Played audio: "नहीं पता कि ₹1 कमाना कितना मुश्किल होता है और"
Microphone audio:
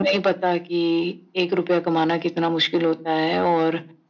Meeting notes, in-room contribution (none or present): none